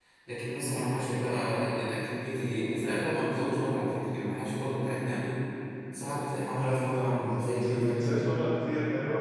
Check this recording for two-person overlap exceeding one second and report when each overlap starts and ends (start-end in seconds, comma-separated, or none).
6.5-8.0